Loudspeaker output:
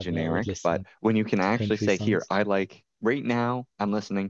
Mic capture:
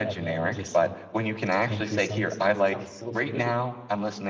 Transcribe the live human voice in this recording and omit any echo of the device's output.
It sounds so familiar.

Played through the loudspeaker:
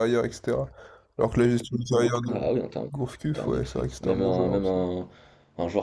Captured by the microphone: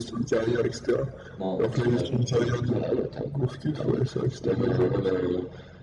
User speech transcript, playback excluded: non, à son âge, hein, j'ai jamais vu ça.

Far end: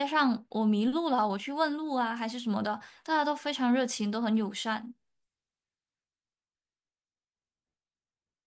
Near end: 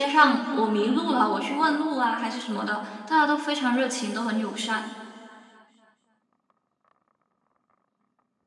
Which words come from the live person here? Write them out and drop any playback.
none

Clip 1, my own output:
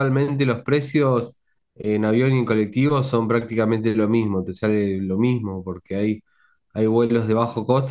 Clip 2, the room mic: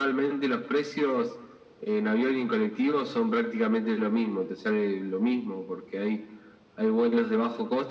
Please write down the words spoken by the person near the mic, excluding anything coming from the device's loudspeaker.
none

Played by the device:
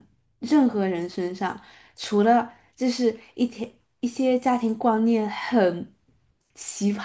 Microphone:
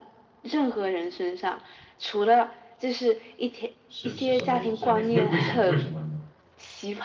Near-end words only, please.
是是什么意是什么意思？为为什么为什么呢？

